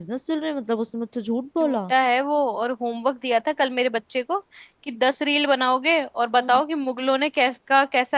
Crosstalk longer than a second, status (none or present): none